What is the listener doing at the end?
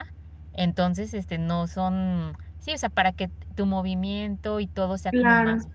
taking over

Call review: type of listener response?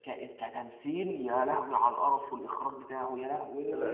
taking over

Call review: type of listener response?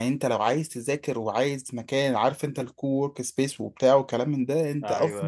listening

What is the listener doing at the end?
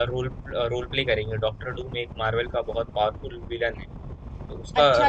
taking over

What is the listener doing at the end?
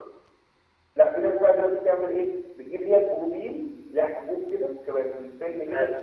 taking over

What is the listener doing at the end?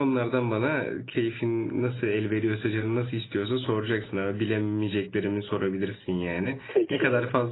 listening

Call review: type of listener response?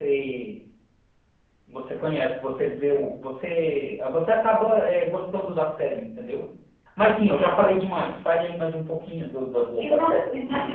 taking over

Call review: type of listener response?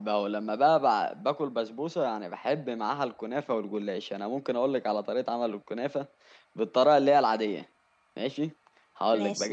listening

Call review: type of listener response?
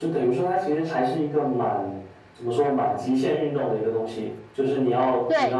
listening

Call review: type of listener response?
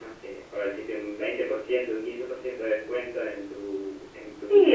taking over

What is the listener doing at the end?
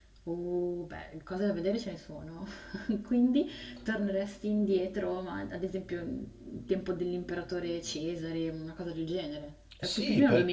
taking over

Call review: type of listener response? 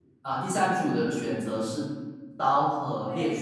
listening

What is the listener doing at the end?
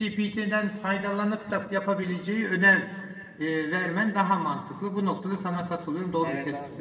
taking over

